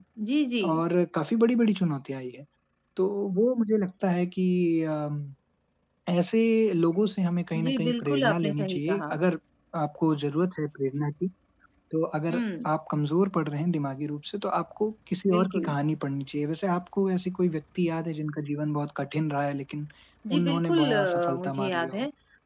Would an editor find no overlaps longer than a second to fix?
No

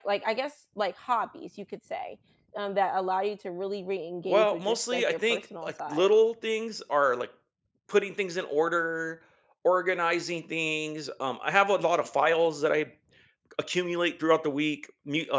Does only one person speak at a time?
No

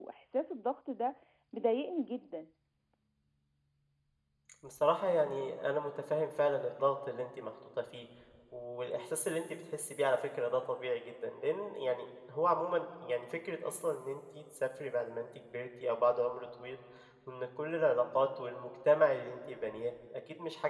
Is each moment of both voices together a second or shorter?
Yes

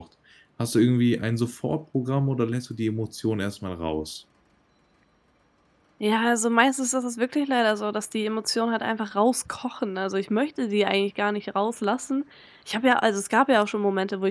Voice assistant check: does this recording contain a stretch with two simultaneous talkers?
No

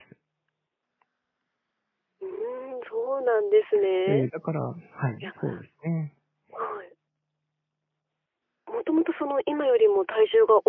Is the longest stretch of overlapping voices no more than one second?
Yes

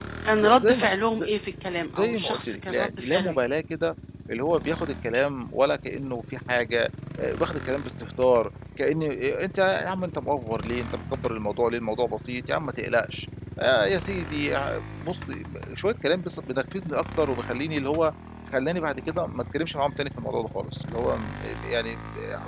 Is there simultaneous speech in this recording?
Yes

